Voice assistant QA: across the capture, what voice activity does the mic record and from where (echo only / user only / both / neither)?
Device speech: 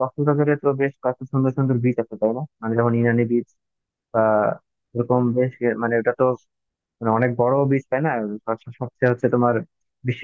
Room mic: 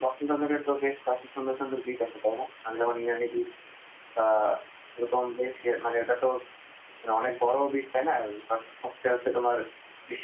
echo only